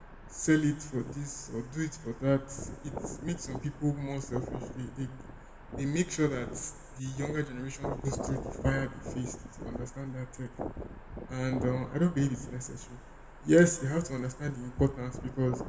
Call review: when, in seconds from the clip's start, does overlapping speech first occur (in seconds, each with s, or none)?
none